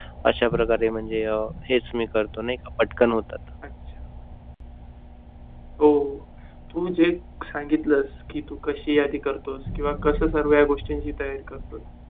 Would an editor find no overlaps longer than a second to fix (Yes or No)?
Yes